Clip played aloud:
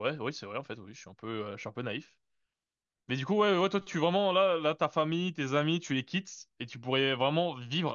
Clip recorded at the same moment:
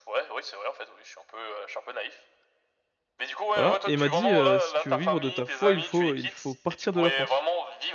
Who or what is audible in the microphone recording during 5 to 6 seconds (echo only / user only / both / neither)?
both